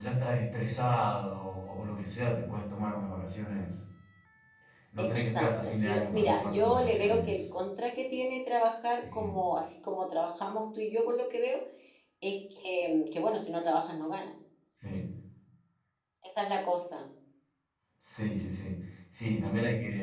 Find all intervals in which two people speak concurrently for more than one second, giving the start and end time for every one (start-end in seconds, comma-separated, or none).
5.0-7.3